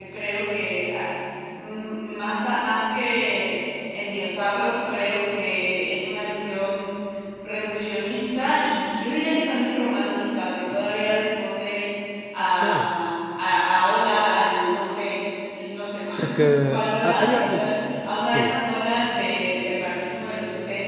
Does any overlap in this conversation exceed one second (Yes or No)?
Yes